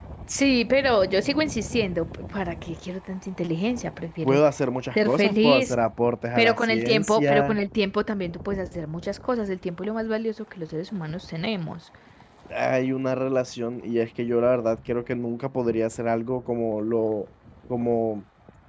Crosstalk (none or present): present